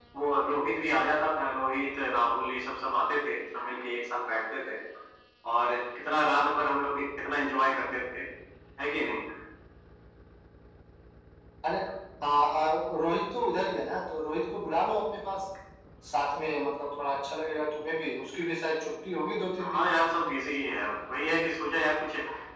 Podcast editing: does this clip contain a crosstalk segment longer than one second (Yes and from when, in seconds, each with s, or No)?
No